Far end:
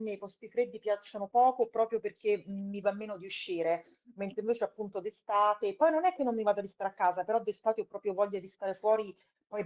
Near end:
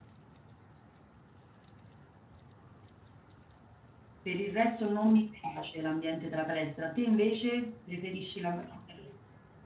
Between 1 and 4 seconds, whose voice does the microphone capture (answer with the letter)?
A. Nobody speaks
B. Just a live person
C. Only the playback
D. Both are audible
A